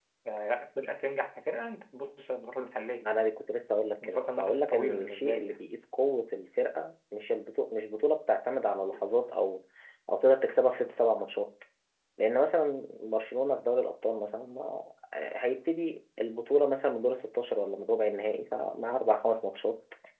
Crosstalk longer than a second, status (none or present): present